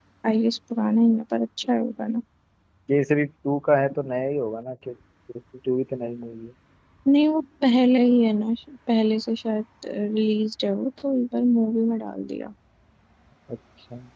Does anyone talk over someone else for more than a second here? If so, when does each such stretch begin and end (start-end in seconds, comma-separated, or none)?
none